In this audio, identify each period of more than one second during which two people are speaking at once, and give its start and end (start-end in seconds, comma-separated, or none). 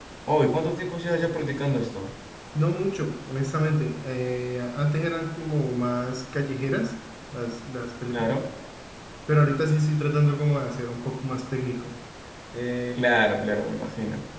none